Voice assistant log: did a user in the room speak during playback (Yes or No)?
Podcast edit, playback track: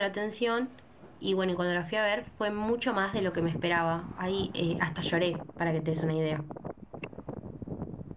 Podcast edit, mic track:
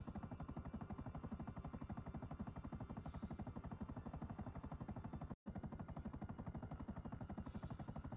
No